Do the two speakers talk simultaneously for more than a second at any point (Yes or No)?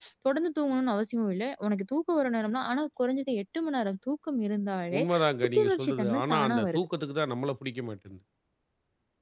Yes